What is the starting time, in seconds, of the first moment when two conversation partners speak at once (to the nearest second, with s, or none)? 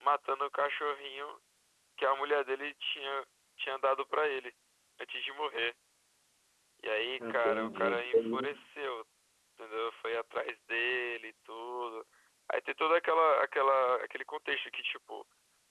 7 s